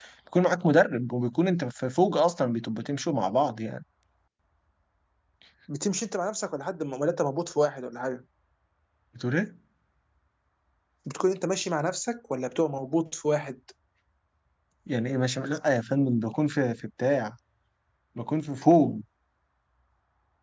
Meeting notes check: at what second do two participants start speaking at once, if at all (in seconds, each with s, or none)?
none